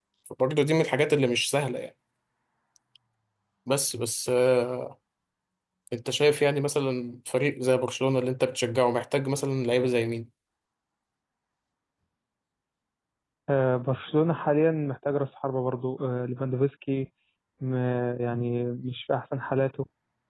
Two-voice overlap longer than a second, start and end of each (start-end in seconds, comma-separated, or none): none